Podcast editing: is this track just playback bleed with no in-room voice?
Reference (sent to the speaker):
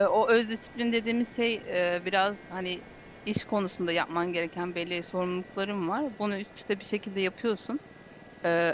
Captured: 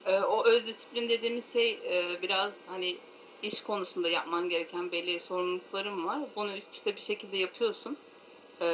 Yes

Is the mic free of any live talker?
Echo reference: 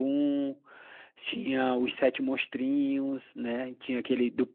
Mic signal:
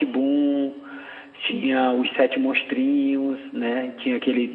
Yes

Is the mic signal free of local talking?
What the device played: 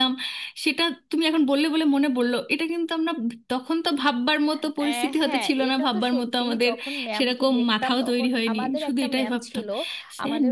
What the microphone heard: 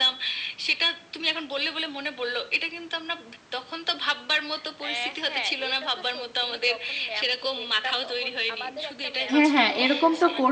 No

